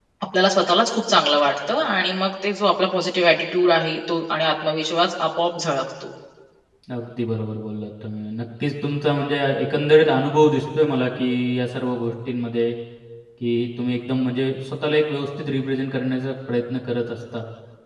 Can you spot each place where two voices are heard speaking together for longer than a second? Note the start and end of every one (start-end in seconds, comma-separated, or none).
none